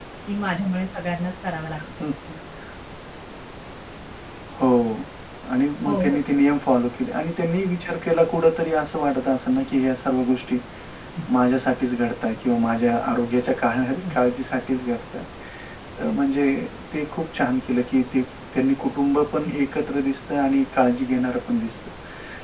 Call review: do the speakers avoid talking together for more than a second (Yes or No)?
Yes